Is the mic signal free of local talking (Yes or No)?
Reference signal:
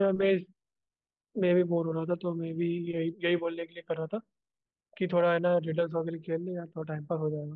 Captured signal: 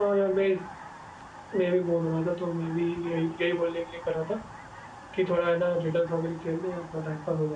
Yes